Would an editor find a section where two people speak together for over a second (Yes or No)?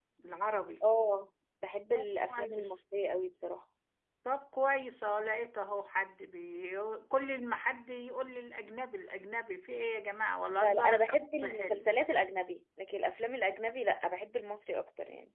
Yes